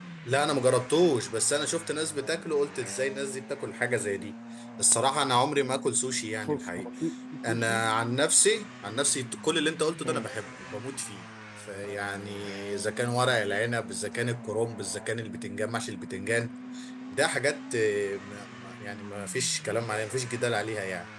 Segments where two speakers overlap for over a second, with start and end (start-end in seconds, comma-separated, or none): none